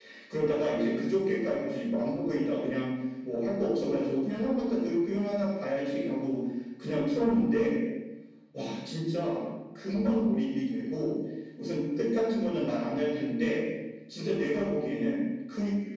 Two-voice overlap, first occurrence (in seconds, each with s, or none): none